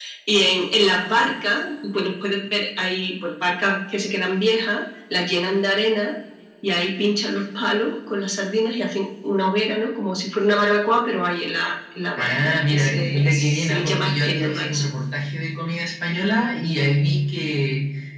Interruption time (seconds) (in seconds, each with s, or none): 12.2 s